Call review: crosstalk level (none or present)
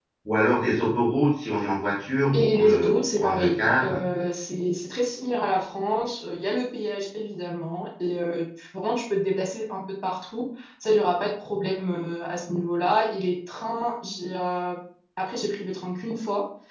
present